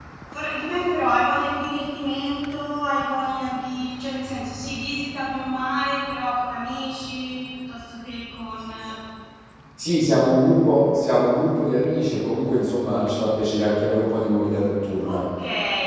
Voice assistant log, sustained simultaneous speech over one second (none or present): none